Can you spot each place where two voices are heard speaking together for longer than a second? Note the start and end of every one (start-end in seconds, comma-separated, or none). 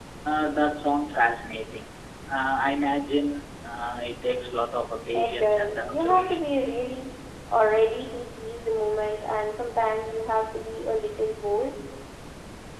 5.2-6.6